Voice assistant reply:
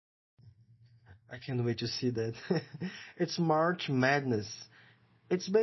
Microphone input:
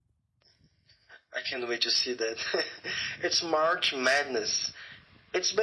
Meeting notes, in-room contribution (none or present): none